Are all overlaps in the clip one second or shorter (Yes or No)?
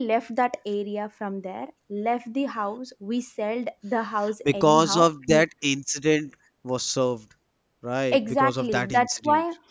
No